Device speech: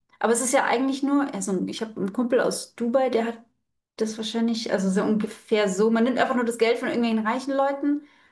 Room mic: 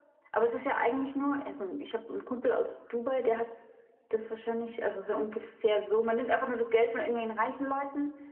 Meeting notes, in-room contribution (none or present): none